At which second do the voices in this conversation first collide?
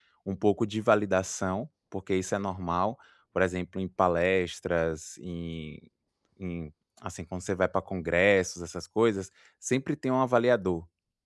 none

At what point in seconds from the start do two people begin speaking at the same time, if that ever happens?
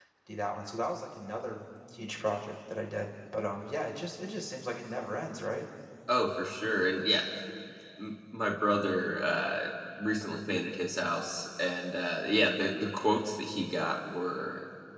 none

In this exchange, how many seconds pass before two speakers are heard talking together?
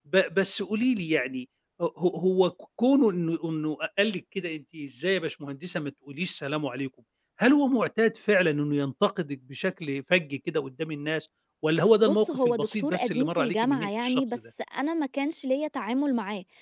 12 s

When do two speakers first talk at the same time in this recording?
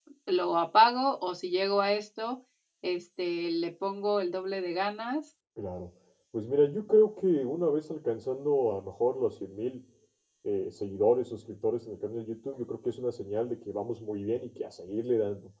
none

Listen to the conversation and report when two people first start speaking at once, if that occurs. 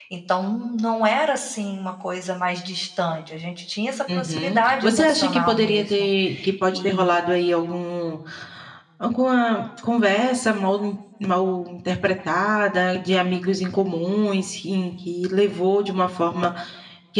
4 s

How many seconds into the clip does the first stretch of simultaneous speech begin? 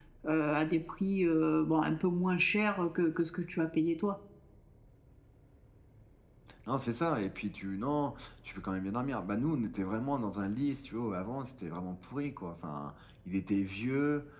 none

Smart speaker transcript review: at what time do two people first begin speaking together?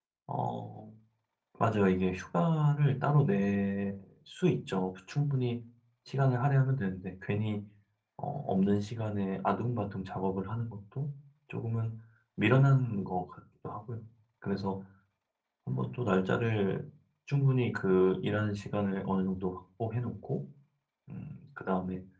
none

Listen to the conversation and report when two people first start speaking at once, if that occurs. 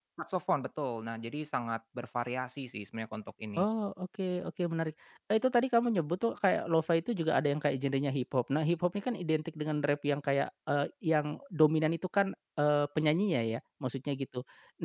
none

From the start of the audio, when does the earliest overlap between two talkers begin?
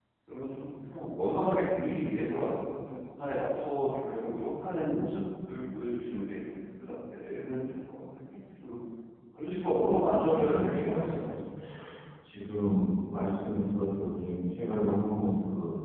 10 s

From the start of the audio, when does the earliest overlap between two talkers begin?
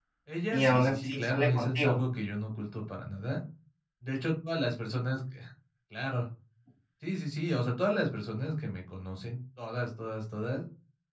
1 s

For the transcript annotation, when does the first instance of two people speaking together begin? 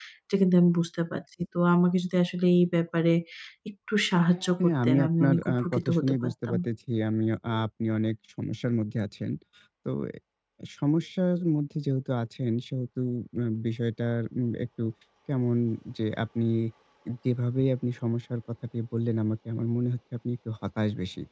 5 s

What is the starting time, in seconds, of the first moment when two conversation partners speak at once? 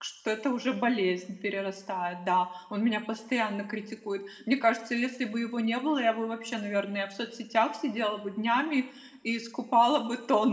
none

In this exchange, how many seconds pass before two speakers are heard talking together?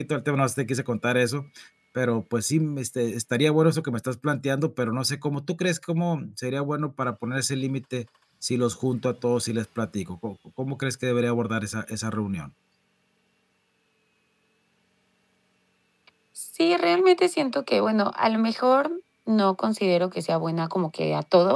none

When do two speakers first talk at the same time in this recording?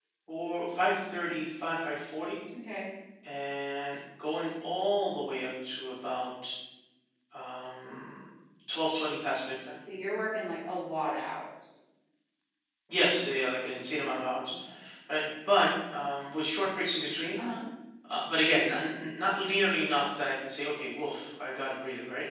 none

